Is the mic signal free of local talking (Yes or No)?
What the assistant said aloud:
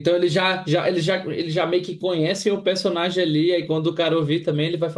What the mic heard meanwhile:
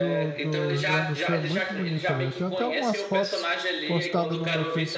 No